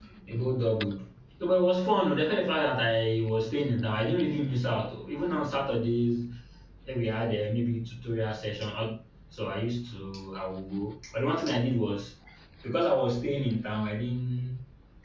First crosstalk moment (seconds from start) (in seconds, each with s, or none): none